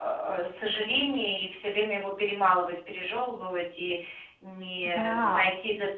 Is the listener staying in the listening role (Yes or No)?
Yes